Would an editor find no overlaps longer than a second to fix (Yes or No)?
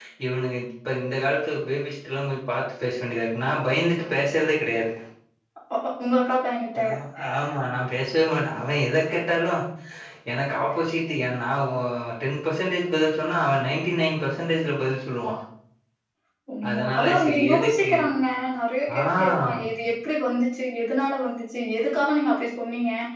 No